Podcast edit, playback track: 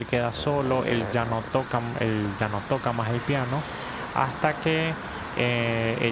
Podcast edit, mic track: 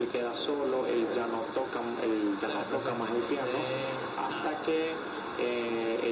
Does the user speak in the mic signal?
Yes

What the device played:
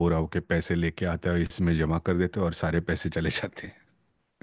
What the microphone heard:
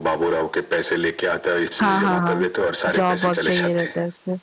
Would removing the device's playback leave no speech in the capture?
No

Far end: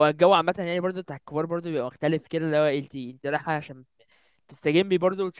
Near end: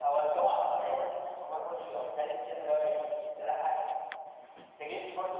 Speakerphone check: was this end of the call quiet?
Yes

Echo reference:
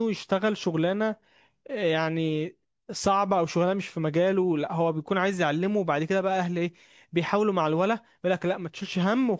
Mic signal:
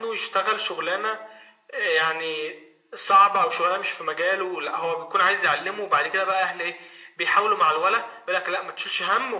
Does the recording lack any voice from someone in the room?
Yes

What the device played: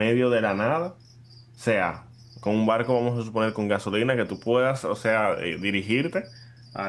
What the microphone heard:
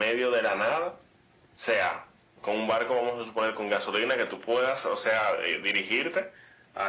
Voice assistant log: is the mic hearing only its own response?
Yes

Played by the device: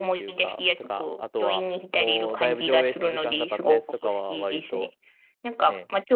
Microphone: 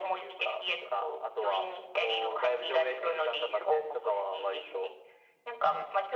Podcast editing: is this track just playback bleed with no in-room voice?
Yes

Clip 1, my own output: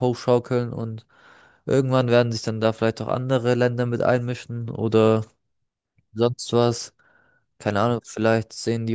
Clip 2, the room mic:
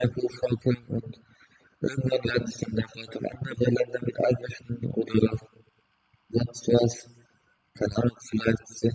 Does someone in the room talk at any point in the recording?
No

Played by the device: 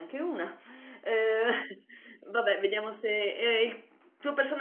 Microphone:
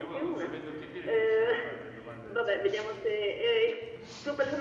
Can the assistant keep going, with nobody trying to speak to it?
No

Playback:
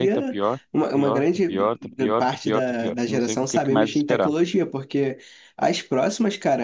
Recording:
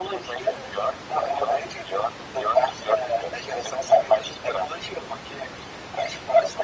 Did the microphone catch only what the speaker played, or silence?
Yes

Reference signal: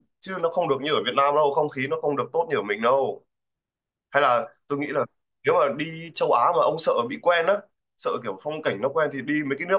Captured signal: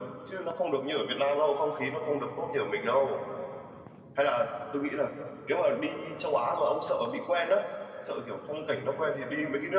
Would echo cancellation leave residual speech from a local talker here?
No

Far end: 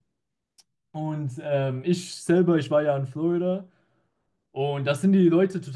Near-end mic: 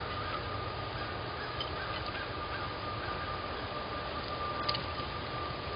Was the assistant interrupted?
No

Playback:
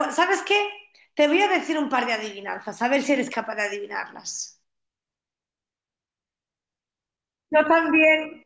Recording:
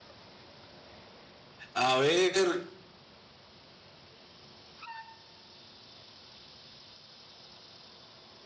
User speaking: Yes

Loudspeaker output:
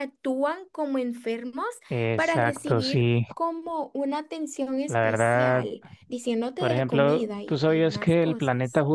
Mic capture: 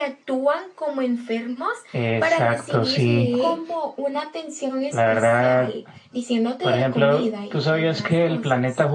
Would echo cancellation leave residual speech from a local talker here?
Yes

